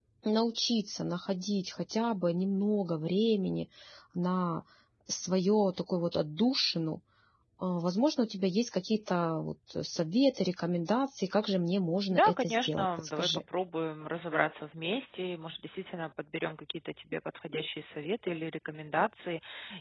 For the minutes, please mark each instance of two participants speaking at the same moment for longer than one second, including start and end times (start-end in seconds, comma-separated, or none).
12.1-13.4